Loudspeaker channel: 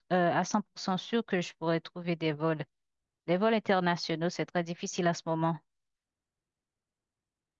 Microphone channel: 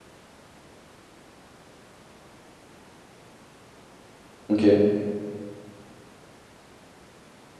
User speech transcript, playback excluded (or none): Ok.